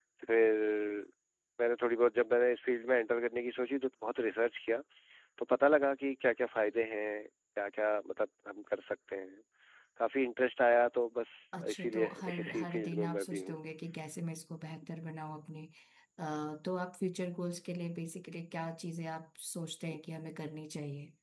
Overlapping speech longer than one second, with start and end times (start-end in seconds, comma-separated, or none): 11.7-13.6